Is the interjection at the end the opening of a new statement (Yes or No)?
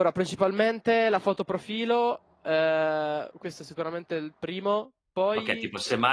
Yes